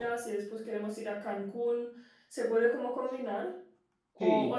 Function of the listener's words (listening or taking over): listening